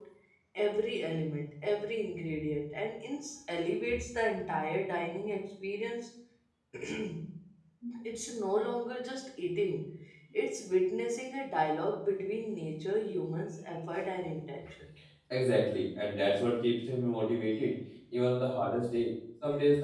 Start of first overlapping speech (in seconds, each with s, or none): none